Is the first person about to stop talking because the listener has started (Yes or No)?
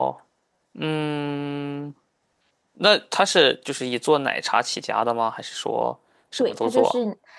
Yes